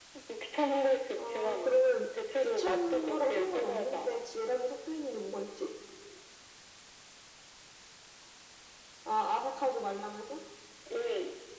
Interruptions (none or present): present